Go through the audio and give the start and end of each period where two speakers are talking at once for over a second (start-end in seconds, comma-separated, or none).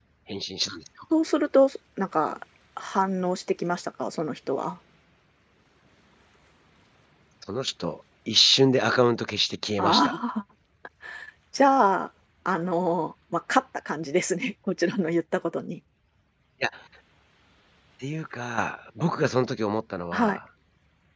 none